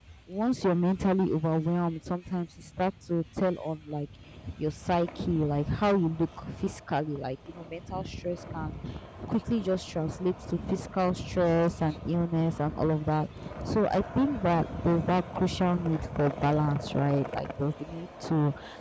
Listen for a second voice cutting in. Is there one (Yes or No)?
No